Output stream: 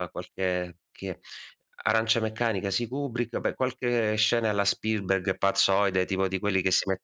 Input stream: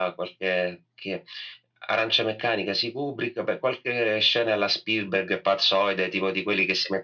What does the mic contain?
echo only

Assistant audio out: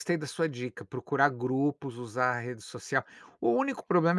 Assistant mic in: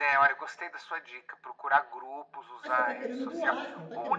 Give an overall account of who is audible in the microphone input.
both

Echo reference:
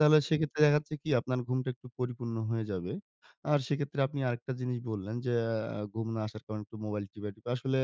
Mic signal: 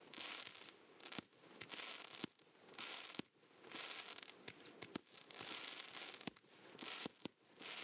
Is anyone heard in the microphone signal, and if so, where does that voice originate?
neither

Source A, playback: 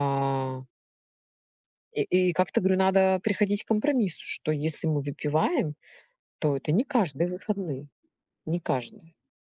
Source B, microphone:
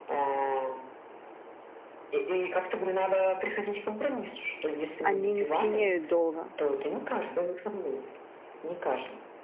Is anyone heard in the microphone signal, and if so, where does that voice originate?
both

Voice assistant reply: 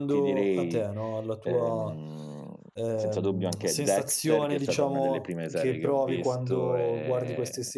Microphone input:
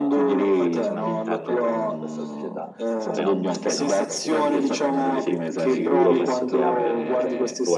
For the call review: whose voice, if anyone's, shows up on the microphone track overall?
both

